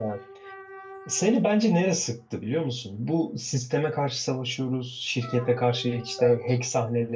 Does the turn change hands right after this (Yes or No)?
No